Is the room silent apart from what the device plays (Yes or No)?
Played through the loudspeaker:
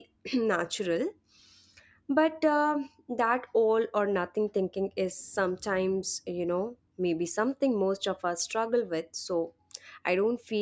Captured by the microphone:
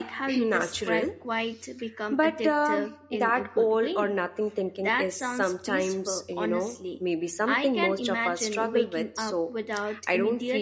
No